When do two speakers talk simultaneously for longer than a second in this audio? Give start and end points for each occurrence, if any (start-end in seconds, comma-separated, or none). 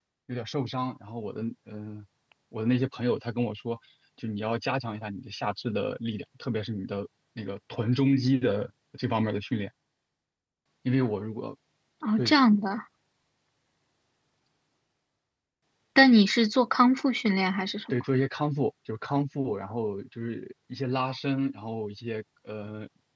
none